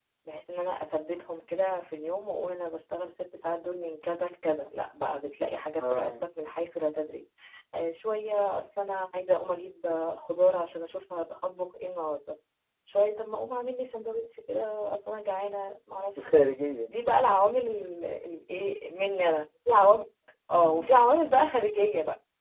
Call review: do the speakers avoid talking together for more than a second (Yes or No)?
Yes